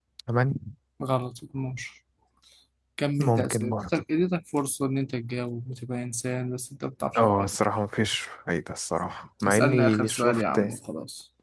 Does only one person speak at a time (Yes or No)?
No